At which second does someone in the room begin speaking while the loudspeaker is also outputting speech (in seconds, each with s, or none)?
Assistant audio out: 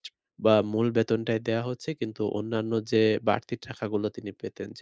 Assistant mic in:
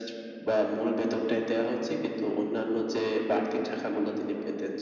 none